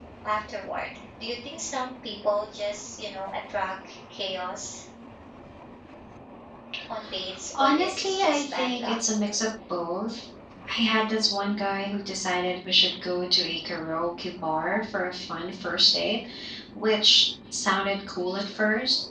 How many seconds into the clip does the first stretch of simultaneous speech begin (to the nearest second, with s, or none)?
8 s